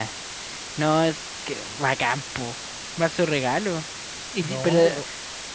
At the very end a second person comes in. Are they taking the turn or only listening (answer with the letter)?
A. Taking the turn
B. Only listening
B